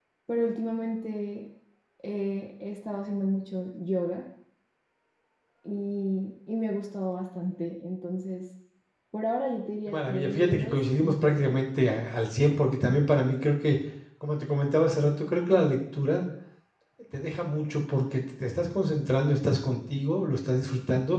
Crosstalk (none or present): present